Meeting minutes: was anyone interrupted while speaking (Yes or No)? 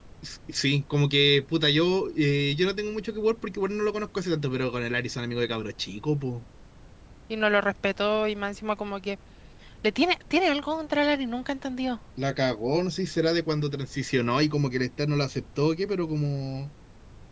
No